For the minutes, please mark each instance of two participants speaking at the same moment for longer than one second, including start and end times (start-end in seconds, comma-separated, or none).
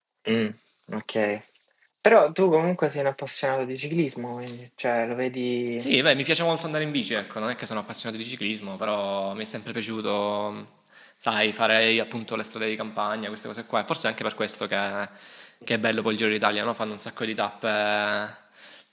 none